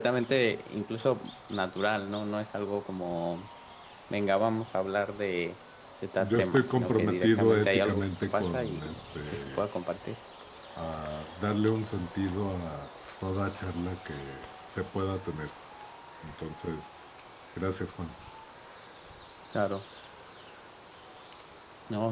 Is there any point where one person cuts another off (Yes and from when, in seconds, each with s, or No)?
Yes, from 6.2 s